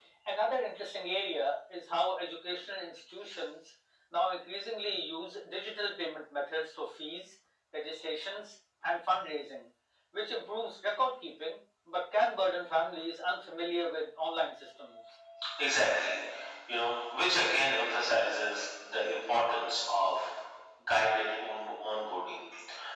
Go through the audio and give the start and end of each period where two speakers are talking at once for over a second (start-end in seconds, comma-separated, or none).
none